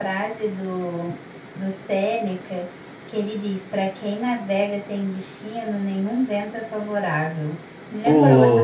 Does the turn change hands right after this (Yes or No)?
Yes